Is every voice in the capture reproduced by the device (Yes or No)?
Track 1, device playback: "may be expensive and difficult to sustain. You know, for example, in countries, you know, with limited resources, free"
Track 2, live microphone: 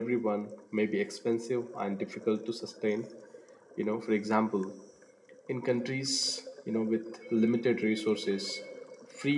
Yes